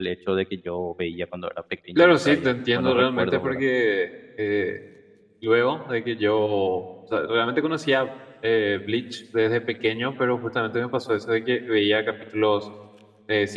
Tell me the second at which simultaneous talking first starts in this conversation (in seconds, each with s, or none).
1.9 s